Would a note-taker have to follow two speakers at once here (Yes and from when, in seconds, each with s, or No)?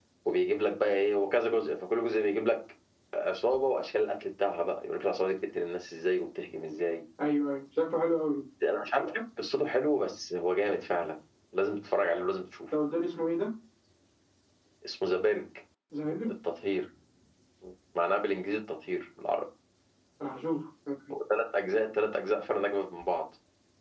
No